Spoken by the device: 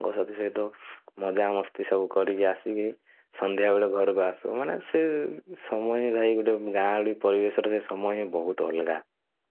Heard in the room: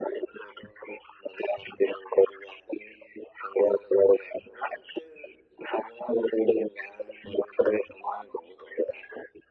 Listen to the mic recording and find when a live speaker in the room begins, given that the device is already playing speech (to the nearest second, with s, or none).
none